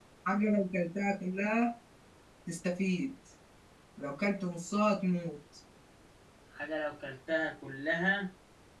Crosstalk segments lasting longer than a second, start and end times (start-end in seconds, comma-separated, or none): none